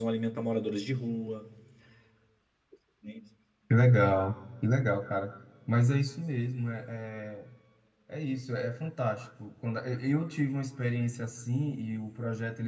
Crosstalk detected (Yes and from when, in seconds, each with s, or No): No